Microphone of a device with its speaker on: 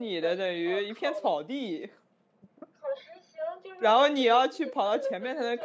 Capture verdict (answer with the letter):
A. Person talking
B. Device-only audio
A